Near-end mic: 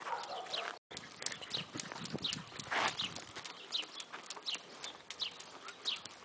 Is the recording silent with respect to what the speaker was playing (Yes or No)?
Yes